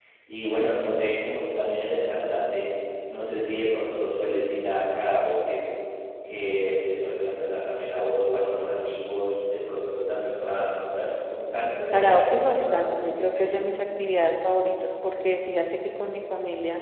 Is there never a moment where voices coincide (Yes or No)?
No